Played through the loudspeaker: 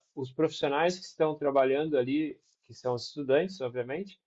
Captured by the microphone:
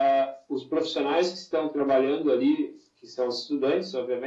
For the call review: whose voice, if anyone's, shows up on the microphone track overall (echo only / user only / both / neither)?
echo only